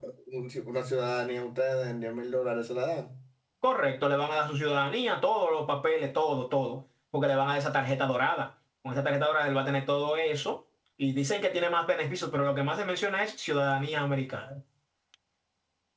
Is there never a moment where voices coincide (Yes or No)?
Yes